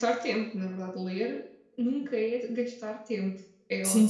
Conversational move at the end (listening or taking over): taking over